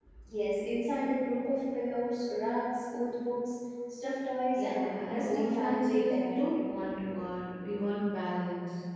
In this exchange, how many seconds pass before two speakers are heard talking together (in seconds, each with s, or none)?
4.6 s